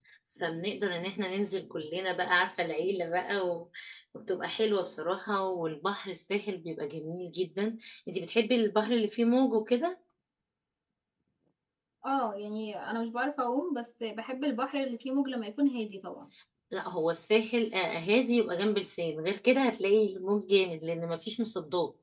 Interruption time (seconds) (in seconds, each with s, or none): none